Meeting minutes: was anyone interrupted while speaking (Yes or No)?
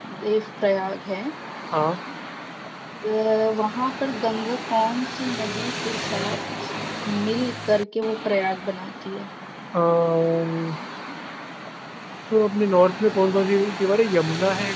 No